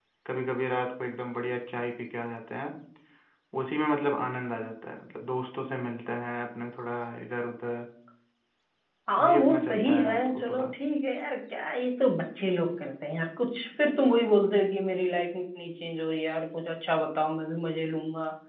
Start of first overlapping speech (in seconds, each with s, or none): 9.2 s